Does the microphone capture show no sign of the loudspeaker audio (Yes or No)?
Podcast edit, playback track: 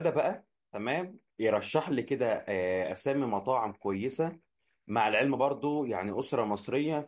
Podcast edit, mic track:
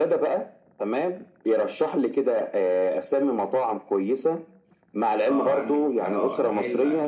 No